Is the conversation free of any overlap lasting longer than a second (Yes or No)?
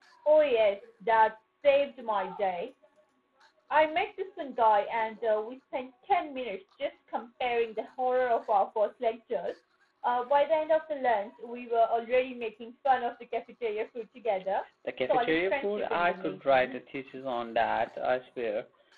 No